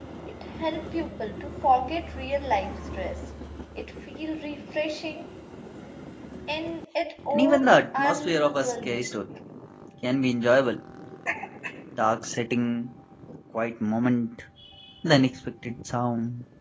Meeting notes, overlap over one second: present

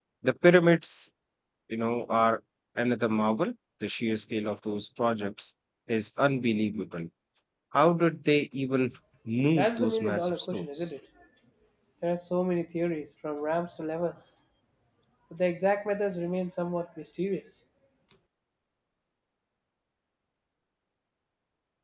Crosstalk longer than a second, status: present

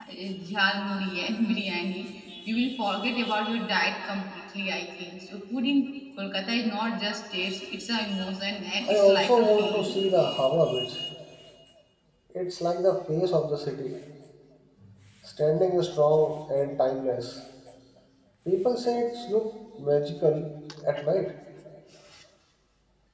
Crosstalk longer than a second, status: present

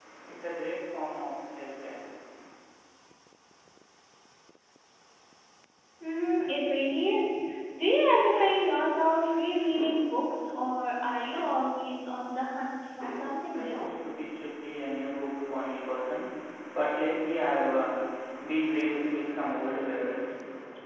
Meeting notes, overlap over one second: none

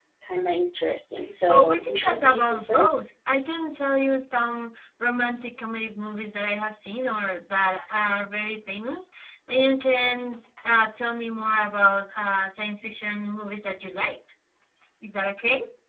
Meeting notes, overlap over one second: present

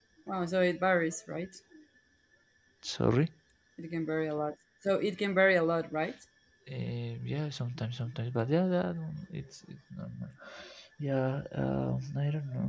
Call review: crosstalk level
none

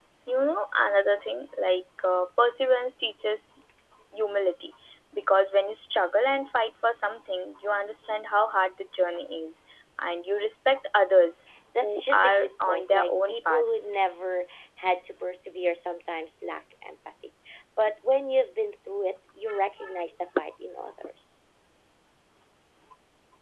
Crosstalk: present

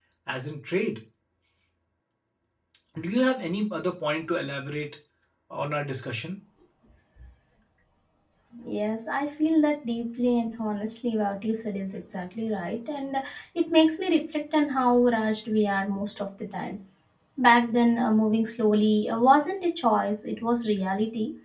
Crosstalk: none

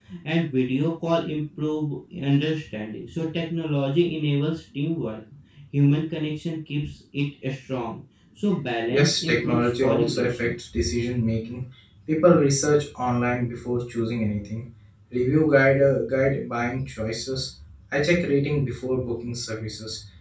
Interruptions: present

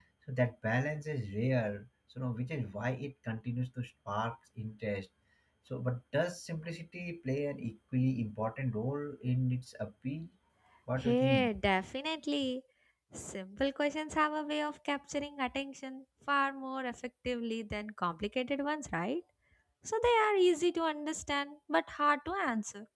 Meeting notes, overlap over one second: none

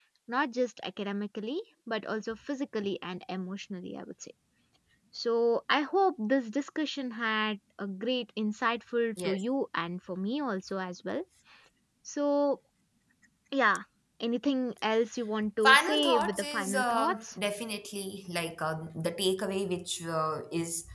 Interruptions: present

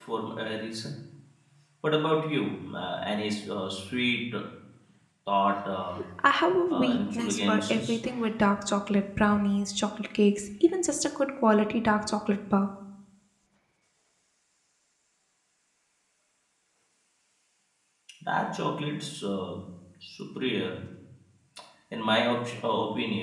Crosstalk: present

